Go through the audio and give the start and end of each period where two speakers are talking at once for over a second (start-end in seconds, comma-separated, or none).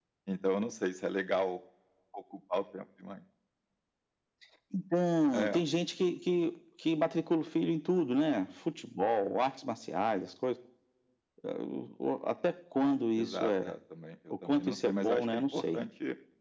14.5-15.8